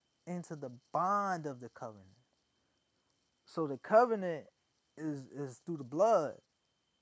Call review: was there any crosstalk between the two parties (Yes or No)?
No